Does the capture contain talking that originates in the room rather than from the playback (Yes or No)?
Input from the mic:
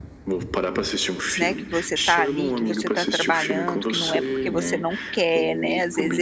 Yes